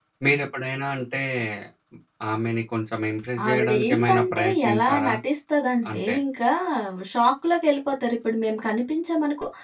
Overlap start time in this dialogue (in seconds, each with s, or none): 3.5 s